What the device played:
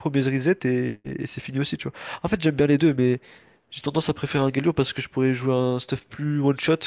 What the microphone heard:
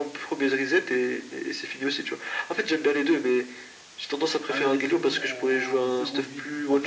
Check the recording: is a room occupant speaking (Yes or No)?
Yes